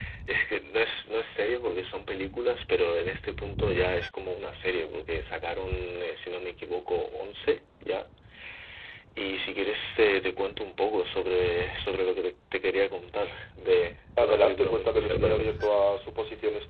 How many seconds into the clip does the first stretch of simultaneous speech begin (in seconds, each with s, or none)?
14.2 s